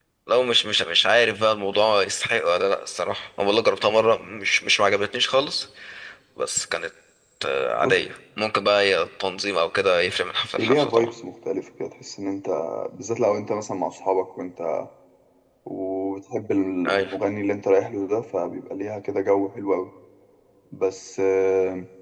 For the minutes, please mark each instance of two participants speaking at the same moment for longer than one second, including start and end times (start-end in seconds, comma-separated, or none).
none